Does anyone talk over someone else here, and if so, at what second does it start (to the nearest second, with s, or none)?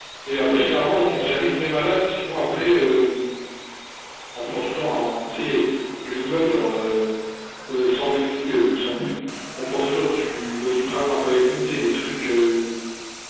none